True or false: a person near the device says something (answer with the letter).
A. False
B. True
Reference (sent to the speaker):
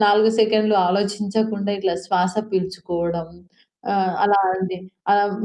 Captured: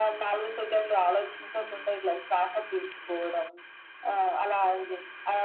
A